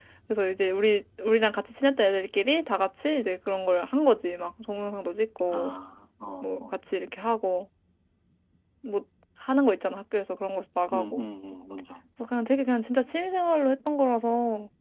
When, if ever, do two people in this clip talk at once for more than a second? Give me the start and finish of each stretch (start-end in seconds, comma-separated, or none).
none